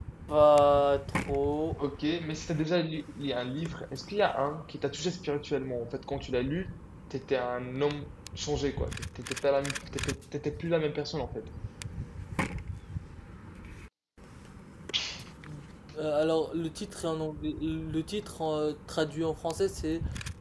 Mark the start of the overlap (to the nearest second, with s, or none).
none